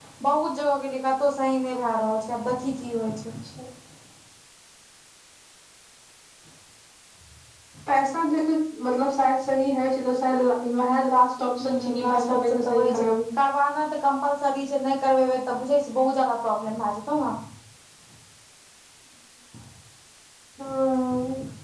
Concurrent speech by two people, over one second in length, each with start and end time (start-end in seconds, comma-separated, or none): 11.6-13.0